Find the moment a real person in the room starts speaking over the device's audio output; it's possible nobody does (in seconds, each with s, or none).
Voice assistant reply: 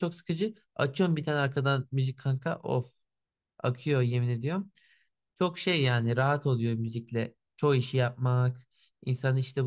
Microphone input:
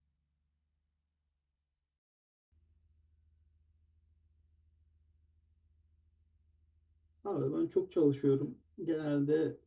7.2 s